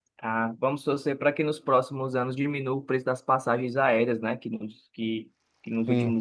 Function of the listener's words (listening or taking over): listening